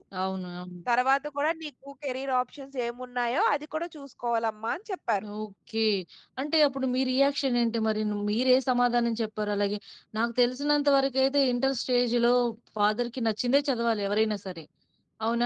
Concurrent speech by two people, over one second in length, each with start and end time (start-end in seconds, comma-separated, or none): none